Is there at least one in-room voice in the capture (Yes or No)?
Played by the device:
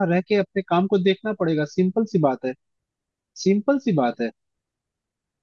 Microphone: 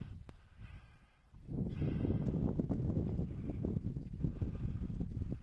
No